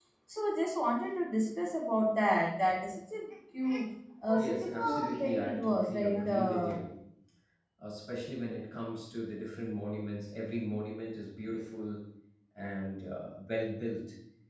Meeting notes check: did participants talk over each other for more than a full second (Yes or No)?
Yes